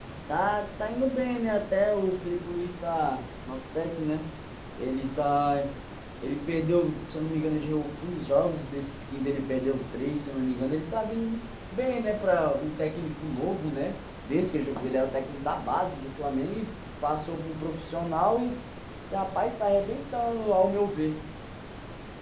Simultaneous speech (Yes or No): No